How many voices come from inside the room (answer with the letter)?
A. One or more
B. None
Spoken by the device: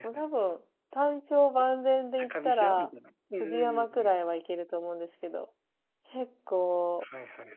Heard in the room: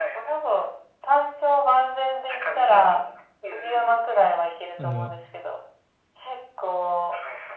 A